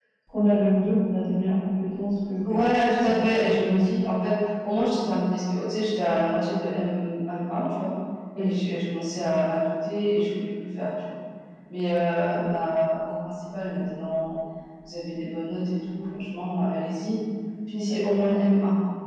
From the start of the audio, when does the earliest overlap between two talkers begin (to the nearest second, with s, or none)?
2 s